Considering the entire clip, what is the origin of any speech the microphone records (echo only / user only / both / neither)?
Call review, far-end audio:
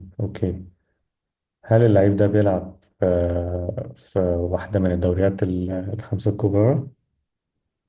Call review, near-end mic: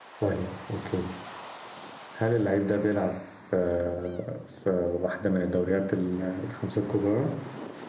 echo only